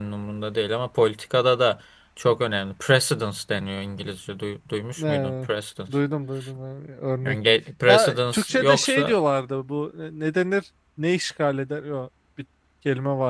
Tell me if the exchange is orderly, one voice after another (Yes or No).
No